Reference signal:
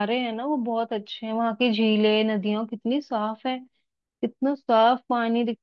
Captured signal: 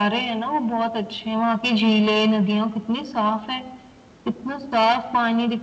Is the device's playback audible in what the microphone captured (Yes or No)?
Yes